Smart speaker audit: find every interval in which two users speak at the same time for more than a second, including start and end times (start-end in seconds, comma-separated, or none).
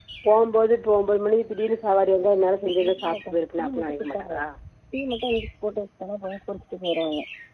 1.9-4.4